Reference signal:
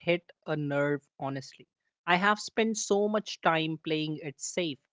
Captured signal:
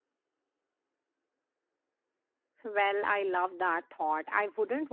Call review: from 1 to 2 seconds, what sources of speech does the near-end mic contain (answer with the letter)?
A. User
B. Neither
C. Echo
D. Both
B